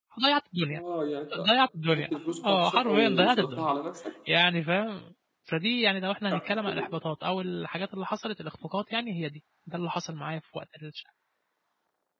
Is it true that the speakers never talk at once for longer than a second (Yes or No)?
No